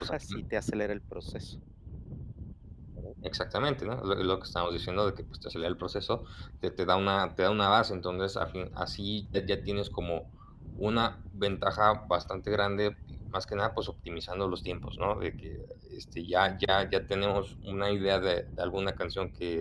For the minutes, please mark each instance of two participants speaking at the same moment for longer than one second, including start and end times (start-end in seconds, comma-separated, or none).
none